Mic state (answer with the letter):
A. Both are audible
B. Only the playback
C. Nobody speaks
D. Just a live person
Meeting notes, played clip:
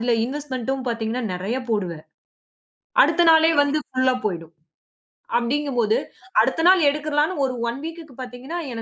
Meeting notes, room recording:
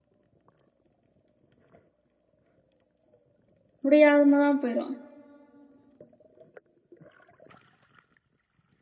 D